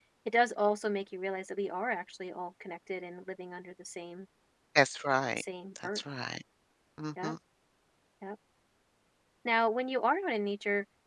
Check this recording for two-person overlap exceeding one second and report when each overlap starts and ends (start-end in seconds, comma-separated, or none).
none